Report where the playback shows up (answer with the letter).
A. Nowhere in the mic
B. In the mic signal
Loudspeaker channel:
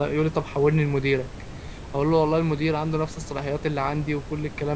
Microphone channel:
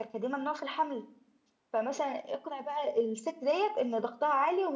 A